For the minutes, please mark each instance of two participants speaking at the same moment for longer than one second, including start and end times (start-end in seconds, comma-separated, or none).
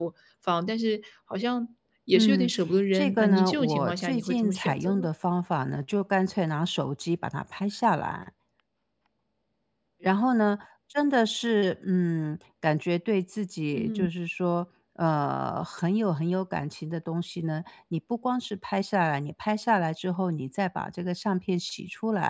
2.9-5.1